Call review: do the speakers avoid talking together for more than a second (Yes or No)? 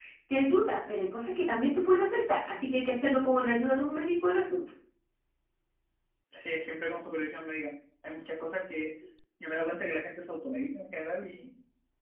Yes